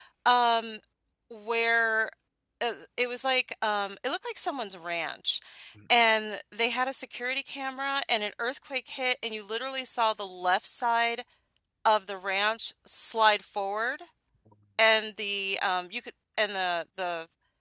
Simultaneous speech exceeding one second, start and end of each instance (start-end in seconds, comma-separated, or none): none